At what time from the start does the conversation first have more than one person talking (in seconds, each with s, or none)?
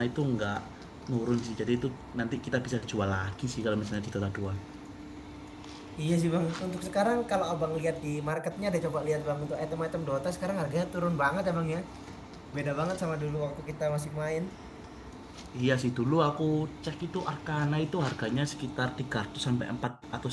none